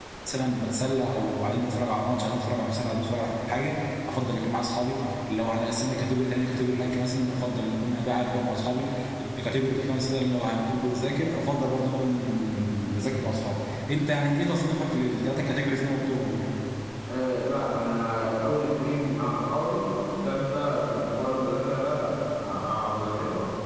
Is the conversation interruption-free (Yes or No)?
Yes